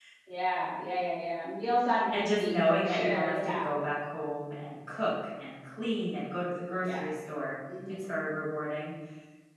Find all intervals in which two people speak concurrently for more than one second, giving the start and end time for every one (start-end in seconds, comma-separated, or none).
2.1-3.7